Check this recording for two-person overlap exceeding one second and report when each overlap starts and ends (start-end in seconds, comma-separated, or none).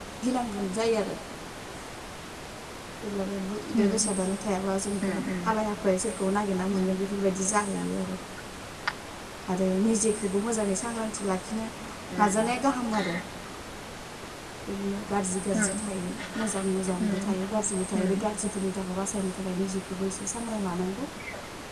none